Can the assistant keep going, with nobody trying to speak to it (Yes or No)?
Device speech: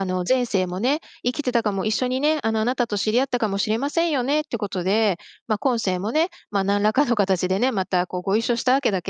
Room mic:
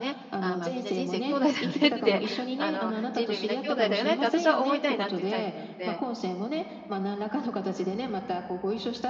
No